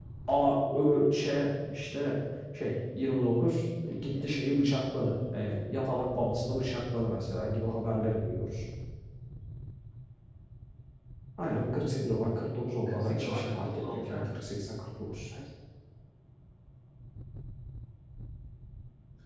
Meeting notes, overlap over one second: present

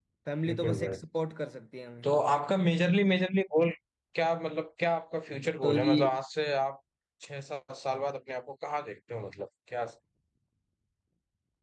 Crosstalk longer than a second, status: none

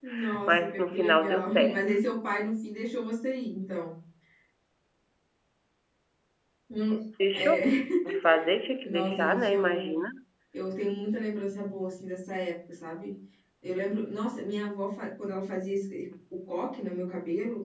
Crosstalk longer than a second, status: present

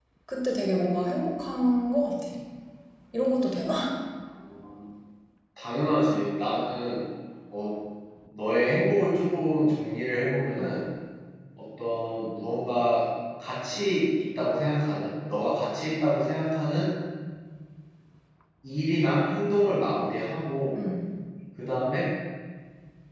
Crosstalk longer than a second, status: none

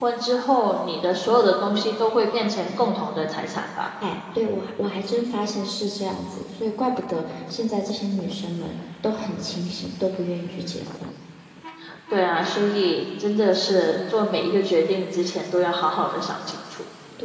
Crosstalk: none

